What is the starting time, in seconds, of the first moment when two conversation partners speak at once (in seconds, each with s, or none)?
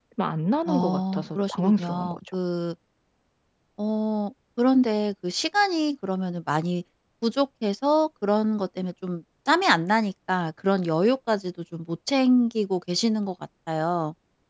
0.7 s